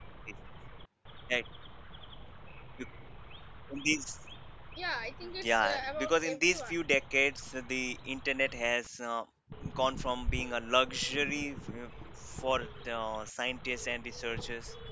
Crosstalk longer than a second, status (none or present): present